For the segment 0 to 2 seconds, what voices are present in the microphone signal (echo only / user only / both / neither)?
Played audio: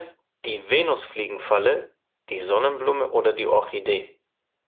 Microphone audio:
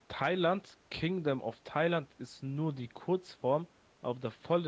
user only